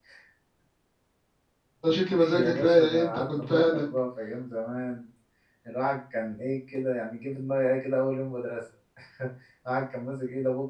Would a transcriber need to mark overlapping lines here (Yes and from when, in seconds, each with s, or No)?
Yes, from 2.4 s